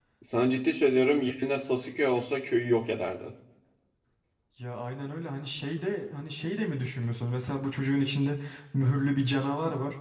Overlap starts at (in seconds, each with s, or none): none